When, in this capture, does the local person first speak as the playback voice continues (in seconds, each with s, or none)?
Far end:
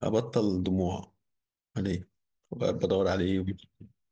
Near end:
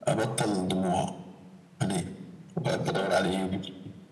none